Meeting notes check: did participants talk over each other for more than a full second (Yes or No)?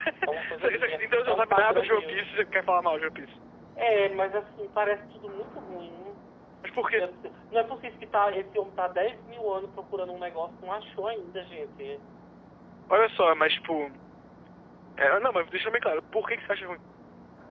Yes